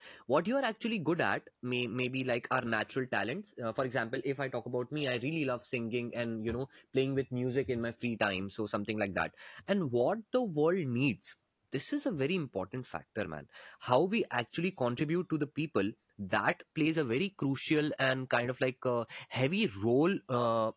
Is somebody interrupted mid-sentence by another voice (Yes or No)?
No